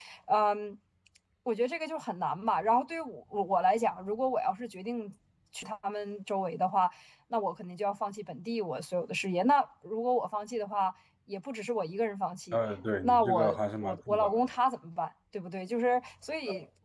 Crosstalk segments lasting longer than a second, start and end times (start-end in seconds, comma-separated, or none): 13.0-14.6